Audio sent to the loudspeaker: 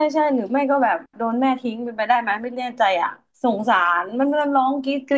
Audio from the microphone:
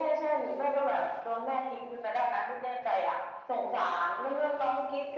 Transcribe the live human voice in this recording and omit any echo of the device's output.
none

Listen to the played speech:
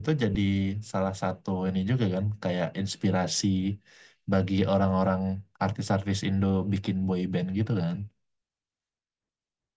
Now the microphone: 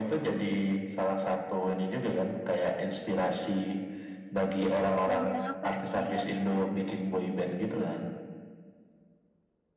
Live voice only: Lagu yang apa? Judul lagu yang mana?

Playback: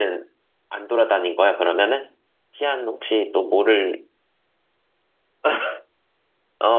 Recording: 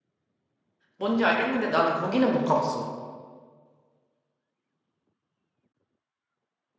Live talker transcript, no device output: 뭔지 알겠는데 나는 거기는 못 가봤어.

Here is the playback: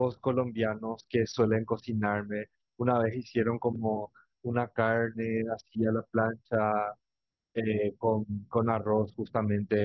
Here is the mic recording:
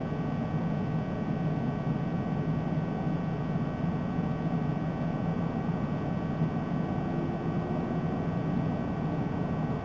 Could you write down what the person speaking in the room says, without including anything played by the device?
none

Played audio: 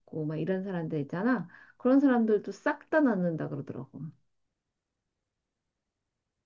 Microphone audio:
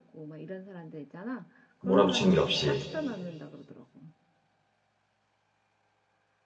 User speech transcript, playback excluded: 몰아붙이는 게 없이.

